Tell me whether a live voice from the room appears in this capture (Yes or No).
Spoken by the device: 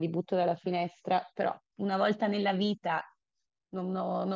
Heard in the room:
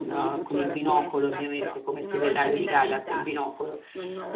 Yes